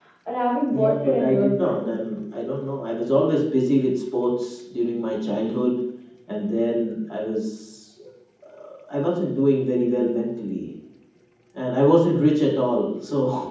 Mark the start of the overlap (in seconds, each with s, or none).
0.7 s